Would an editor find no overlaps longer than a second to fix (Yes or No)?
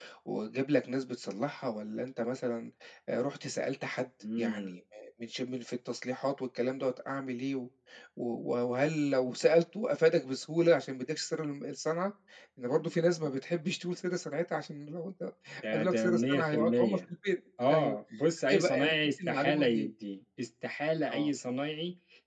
No